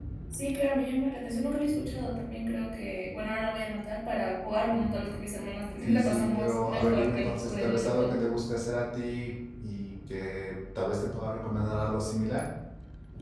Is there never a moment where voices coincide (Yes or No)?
No